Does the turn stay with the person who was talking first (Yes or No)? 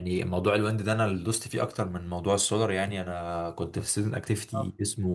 Yes